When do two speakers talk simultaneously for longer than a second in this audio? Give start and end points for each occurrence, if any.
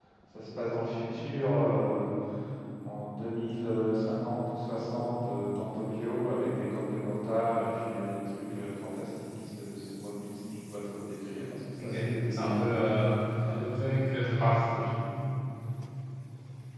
11.8-13.1

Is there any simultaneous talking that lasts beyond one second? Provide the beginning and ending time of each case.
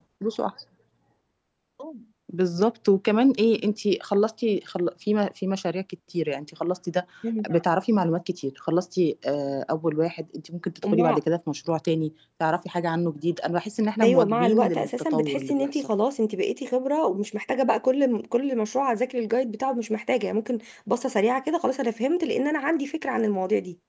14.0-15.9

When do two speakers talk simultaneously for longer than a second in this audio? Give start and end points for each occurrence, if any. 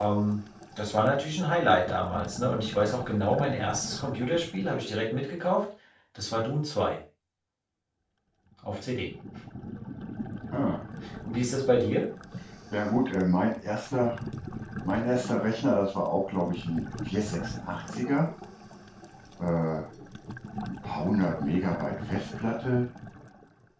none

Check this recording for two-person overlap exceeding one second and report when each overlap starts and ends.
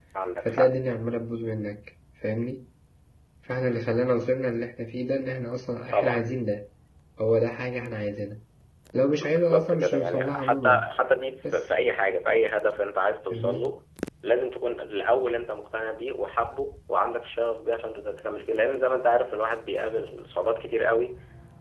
9.2-10.9

